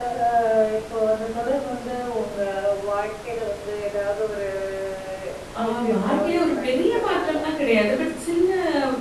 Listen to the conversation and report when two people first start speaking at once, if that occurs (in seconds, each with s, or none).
5.6 s